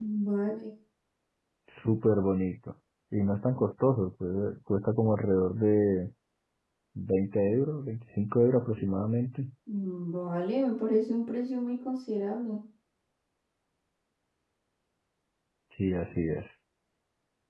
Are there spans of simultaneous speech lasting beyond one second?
No

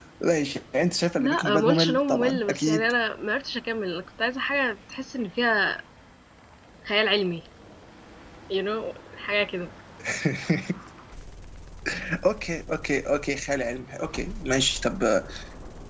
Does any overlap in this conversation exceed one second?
Yes, from 1.2 s

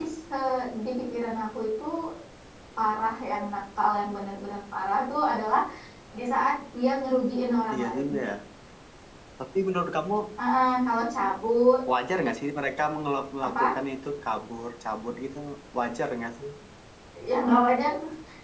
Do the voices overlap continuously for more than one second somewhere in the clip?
No

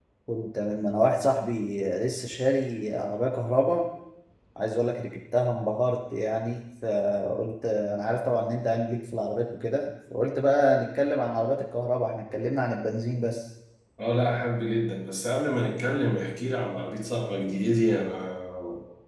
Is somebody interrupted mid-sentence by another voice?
No

